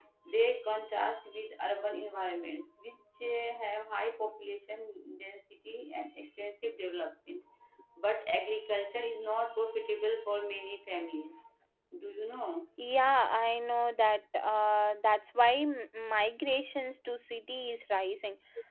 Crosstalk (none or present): none